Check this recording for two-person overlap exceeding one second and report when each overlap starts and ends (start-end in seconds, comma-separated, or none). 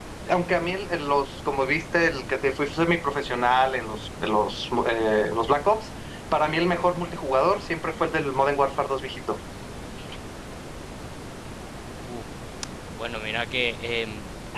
none